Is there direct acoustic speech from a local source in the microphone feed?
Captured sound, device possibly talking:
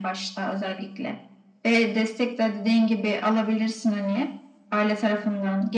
No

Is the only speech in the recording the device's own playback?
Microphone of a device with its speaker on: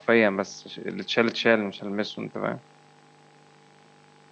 No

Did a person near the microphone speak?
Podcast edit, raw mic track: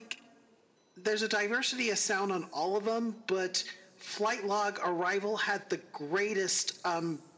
No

